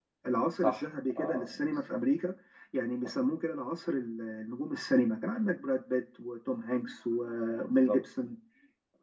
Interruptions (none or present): present